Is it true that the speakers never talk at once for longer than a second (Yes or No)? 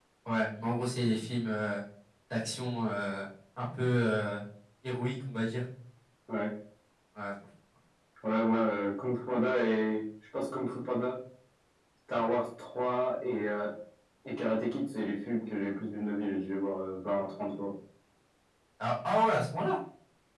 Yes